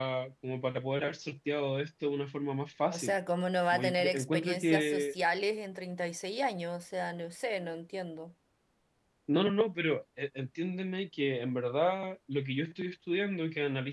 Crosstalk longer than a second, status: present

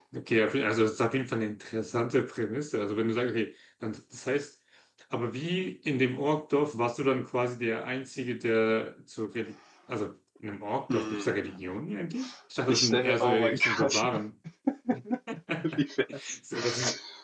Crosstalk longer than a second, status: present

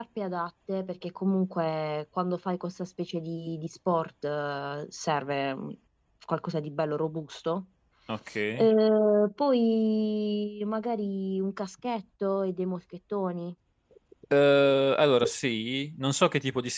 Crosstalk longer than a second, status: none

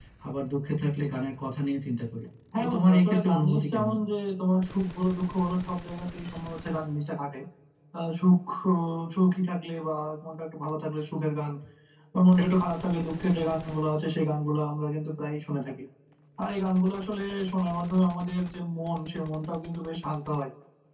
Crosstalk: present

